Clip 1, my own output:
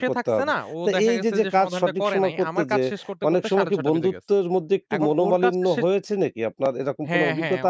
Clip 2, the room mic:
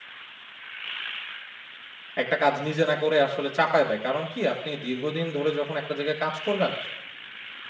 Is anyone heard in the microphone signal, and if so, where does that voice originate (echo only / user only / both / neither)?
user only